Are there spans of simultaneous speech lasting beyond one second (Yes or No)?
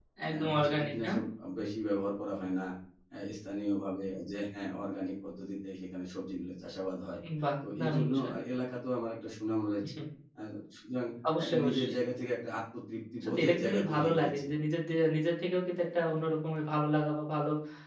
Yes